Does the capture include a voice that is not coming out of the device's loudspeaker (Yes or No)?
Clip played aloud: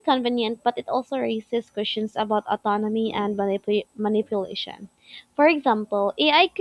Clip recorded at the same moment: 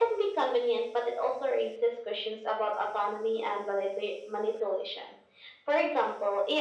No